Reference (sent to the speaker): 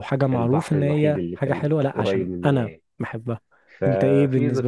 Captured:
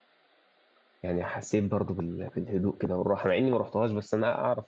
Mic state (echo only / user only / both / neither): user only